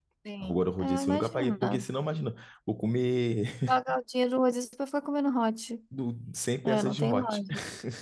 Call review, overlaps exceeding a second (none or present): present